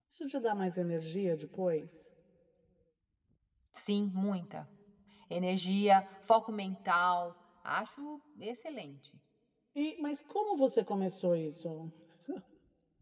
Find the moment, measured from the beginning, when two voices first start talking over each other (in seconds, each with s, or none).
none